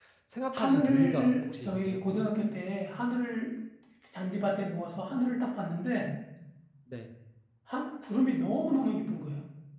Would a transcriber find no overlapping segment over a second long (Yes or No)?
No